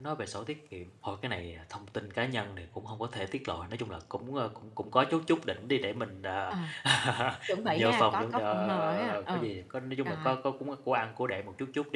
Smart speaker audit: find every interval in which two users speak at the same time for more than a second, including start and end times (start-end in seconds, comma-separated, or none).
7.7-9.5